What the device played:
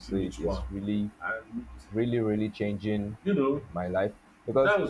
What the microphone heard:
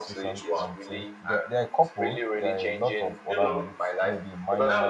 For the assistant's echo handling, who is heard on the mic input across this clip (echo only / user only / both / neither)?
both